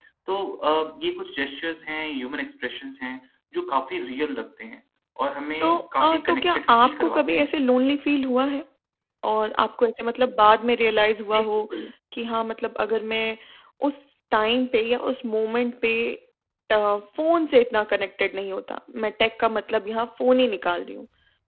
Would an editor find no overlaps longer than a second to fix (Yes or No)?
No